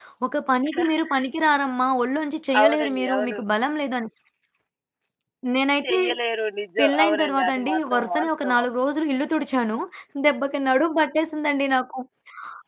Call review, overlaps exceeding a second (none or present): present